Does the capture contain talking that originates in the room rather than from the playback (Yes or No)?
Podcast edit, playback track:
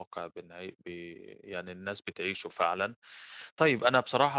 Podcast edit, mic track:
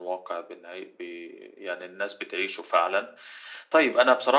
No